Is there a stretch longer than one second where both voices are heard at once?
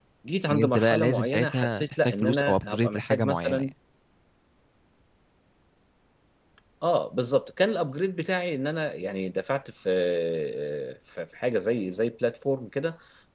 Yes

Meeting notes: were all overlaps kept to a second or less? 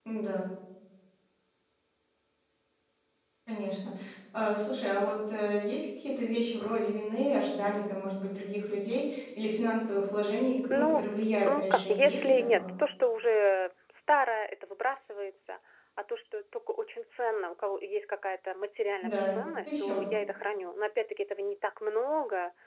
No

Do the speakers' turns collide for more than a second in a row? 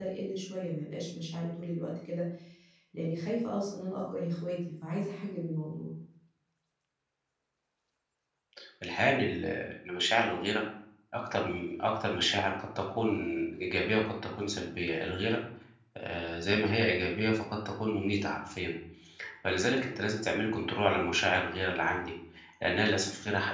No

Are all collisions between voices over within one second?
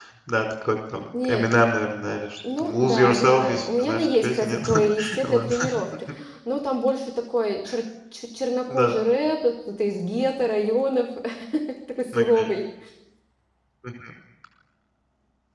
No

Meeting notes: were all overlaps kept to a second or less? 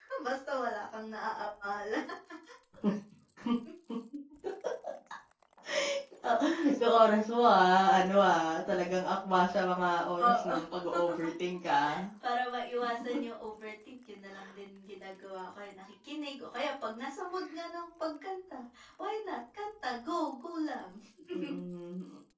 Yes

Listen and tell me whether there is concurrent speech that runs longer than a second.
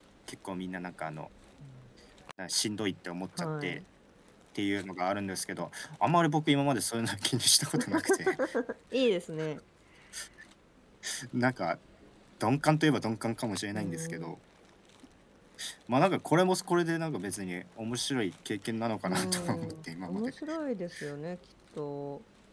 Yes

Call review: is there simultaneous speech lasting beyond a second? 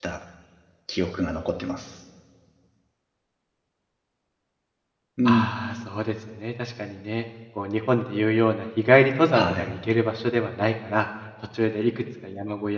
No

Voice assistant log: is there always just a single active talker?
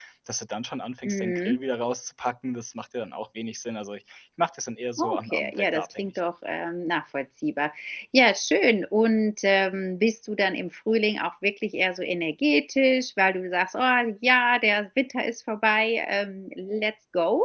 No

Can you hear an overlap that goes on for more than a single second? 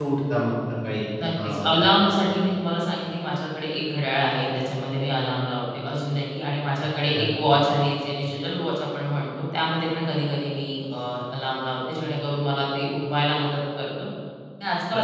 No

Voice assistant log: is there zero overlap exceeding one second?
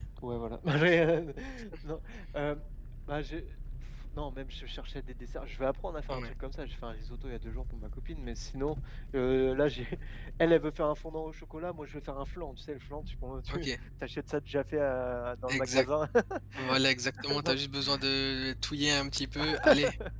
Yes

